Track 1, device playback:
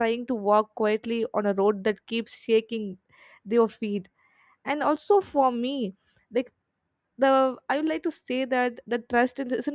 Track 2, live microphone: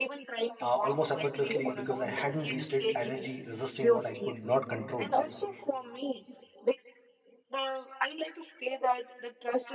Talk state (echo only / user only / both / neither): both